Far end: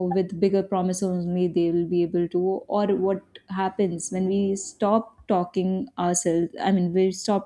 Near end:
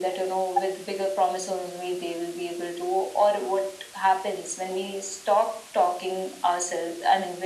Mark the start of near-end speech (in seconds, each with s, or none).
none